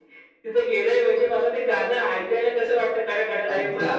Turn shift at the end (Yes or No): Yes